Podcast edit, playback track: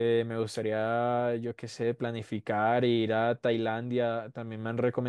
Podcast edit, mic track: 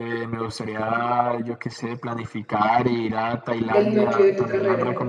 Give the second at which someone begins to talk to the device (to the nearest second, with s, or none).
4 s